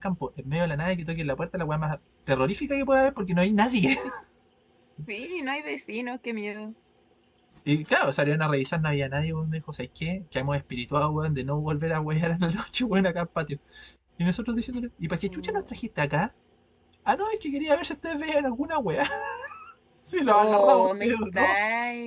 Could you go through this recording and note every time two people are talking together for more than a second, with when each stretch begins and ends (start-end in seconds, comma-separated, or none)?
20.3-21.6